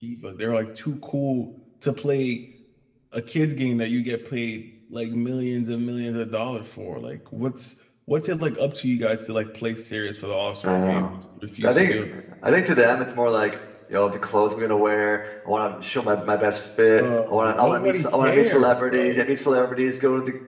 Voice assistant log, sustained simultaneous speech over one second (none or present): present